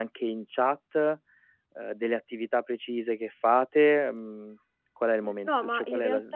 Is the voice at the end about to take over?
Yes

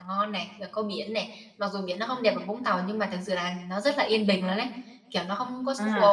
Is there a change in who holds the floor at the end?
Yes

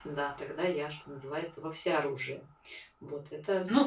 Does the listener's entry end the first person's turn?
Yes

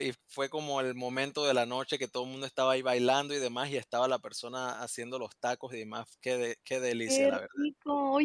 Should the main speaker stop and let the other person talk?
Yes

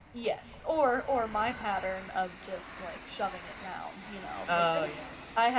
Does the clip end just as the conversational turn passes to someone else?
No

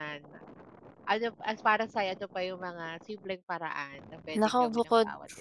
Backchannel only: No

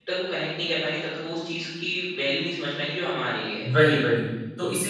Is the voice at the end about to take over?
Yes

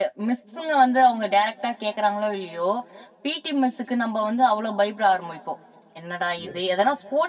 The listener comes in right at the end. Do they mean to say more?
No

